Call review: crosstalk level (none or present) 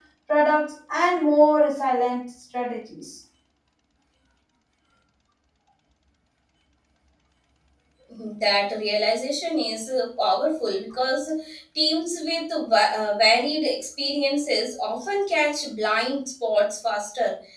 none